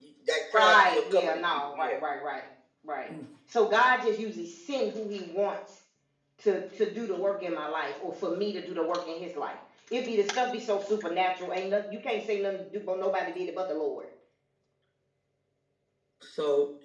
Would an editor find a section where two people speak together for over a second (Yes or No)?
Yes